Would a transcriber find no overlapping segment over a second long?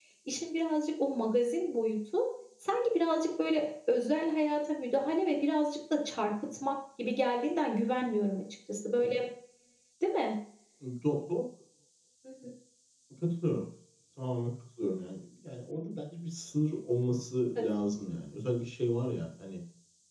Yes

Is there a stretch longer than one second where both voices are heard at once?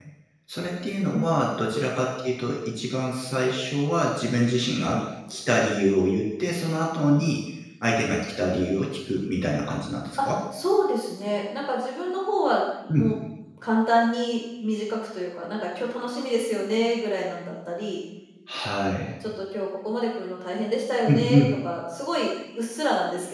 No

